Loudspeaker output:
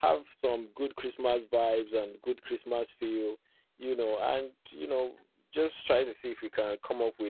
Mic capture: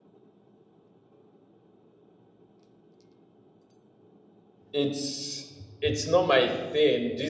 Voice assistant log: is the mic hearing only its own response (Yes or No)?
No